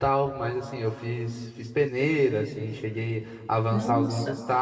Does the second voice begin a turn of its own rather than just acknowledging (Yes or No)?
No